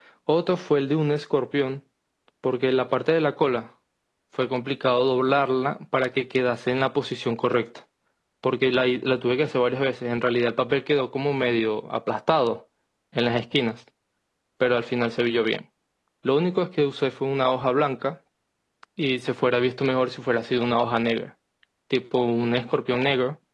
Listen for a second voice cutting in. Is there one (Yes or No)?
No